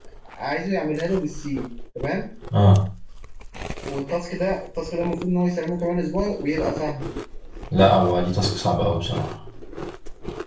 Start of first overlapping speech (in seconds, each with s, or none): none